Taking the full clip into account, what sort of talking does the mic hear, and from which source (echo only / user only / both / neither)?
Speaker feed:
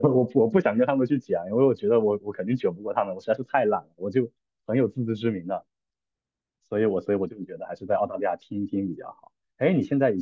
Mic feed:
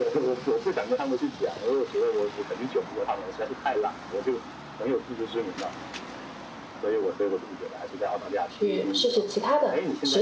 both